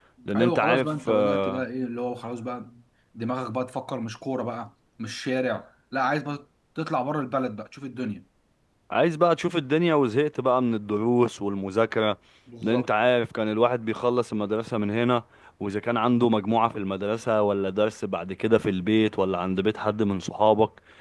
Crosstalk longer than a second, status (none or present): present